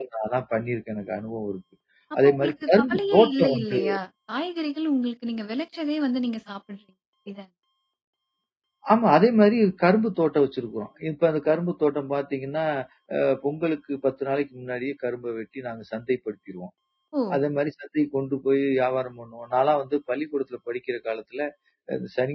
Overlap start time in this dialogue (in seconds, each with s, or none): 2.2 s